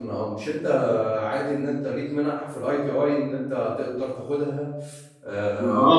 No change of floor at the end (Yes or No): No